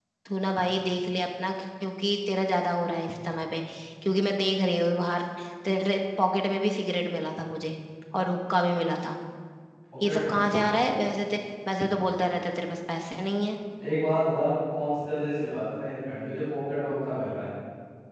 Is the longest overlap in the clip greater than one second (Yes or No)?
No